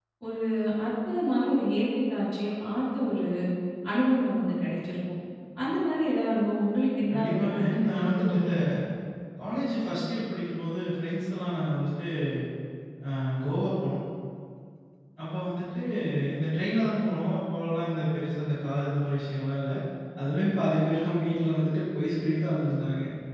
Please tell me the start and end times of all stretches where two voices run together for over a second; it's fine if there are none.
7.1-8.5

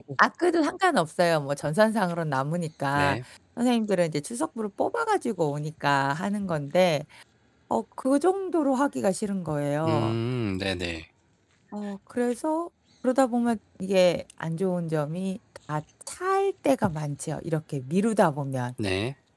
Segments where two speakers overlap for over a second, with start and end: none

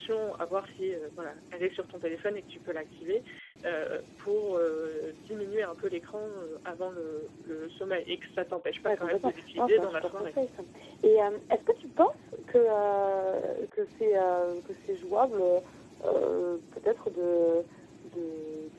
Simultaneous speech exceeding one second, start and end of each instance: 8.8-10.3

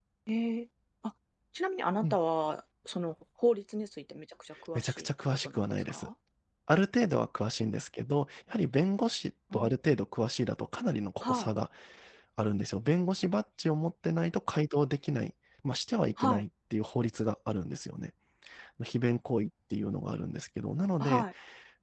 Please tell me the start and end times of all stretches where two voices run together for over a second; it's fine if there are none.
4.8-6.1

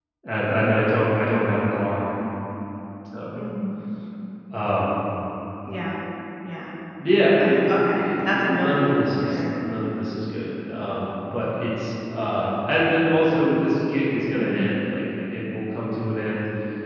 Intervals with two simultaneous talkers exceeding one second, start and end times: 7.4-9.4

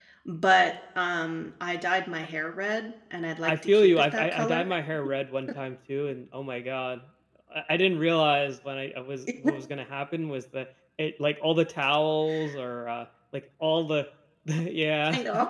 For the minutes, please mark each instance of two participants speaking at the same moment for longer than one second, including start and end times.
3.4-4.6

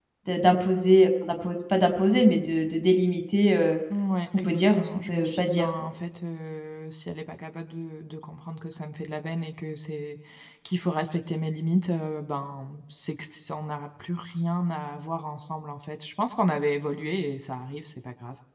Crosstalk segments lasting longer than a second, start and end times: 4.4-5.7

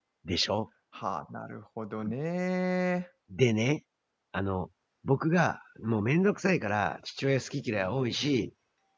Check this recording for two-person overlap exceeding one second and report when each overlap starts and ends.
none

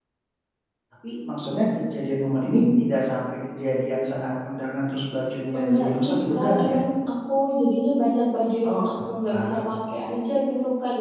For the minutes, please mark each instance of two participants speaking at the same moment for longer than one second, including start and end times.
5.6-6.8

